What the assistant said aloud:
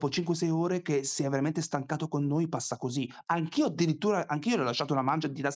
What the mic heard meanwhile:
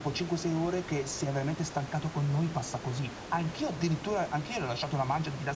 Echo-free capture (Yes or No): No